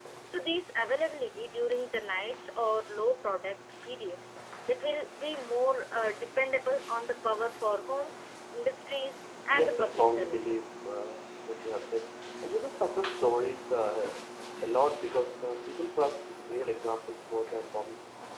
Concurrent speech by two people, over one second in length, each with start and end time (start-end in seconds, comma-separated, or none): 9.5-10.7